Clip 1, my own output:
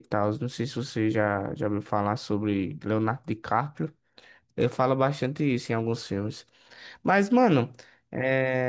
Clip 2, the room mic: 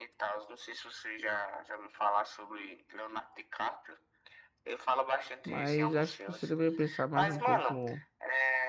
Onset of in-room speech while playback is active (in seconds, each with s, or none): 5.4 s